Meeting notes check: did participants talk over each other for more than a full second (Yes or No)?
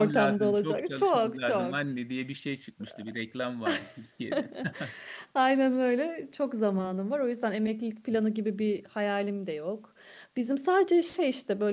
Yes